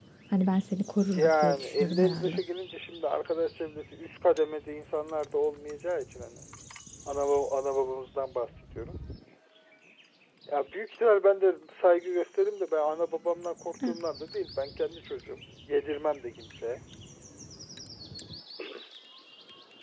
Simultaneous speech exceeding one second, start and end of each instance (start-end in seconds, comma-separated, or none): 1.1-2.4